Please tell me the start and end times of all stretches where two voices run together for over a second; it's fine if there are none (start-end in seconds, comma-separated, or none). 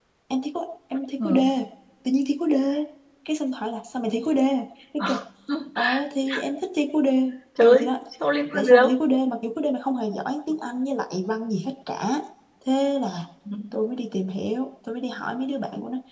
none